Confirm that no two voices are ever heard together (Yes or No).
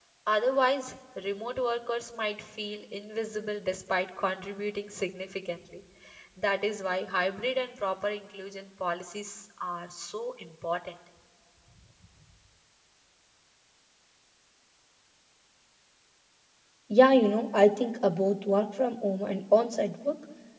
Yes